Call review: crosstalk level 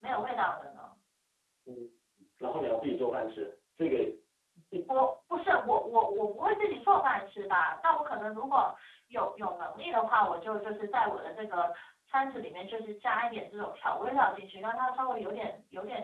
none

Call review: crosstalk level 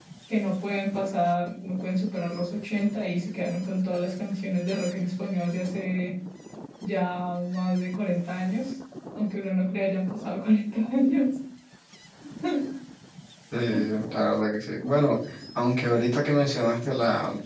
none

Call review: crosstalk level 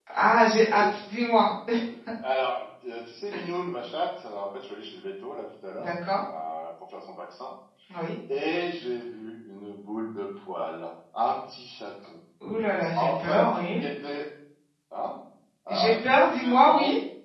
present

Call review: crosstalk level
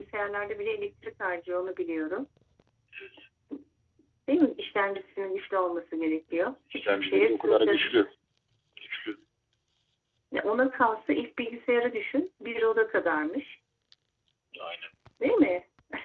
present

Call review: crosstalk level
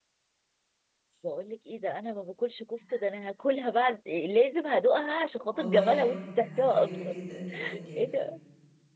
present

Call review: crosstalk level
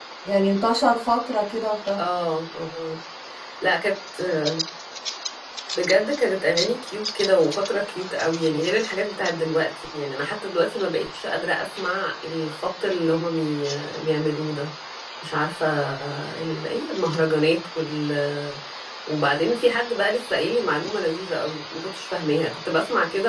none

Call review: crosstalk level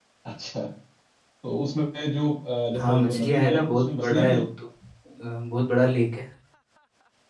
present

